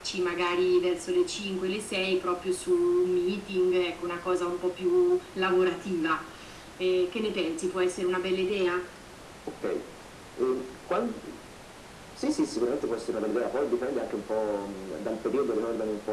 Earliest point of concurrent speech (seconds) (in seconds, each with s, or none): none